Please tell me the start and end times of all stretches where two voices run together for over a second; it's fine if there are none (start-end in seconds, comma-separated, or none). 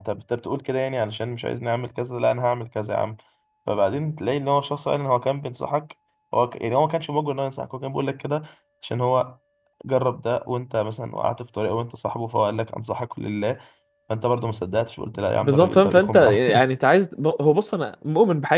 15.4-16.6